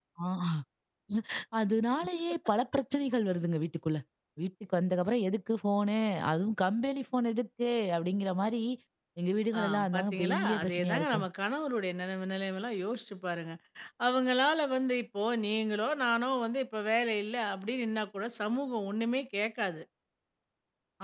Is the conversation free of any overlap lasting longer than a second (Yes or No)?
No